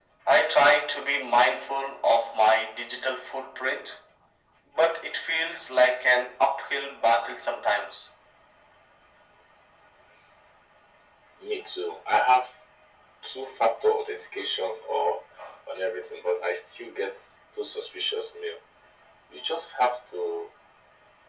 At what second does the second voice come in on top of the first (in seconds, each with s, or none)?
none